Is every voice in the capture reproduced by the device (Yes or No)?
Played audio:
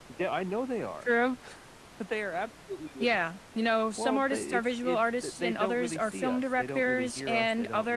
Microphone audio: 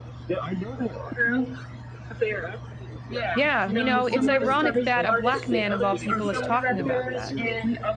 No